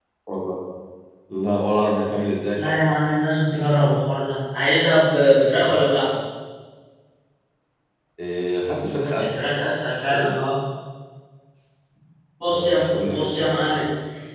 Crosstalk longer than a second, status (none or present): present